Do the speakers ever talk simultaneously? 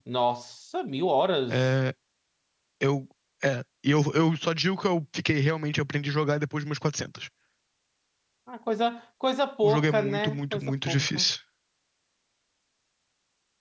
Yes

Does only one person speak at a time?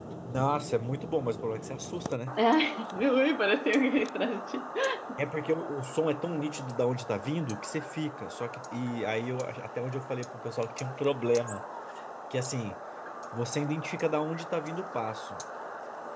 Yes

